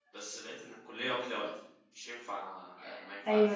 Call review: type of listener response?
taking over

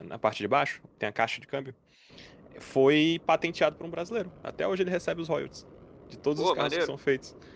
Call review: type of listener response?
listening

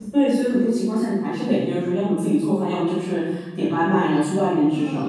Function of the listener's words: listening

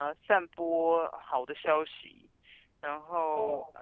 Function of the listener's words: listening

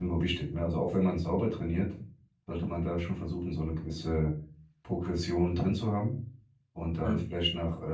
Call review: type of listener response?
listening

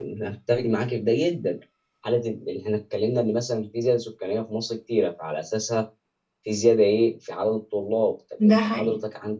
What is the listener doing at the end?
listening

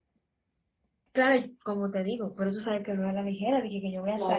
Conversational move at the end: taking over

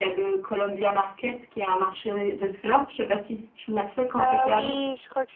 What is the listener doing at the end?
taking over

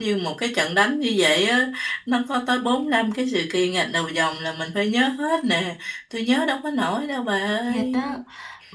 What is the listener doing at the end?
taking over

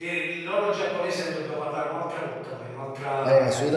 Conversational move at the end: taking over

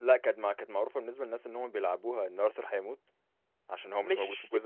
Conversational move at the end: taking over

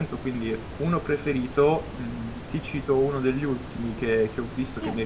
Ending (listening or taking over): listening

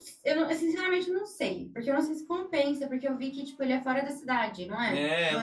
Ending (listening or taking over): taking over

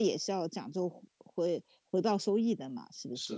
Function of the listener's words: taking over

